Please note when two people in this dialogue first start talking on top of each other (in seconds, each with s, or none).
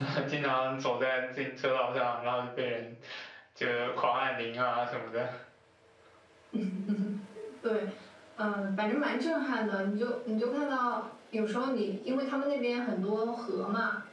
none